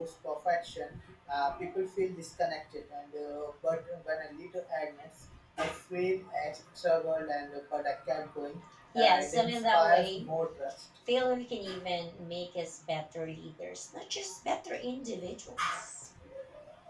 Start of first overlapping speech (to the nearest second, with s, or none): 9 s